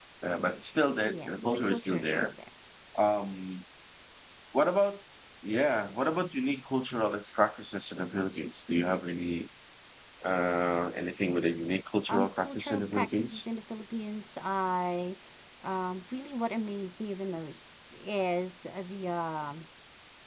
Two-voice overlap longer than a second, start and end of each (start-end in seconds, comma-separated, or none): 1.0-2.3, 12.1-13.5